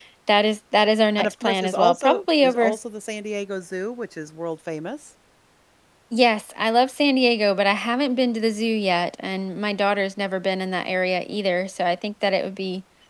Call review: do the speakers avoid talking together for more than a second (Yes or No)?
No